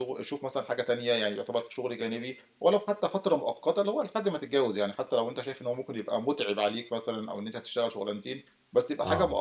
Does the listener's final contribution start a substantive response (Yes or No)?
No